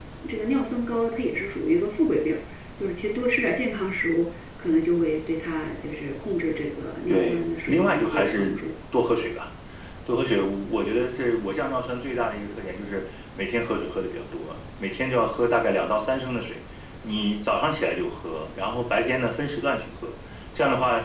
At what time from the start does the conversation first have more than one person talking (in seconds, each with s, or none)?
7.1 s